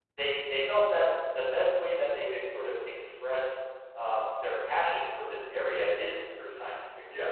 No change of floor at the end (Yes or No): Yes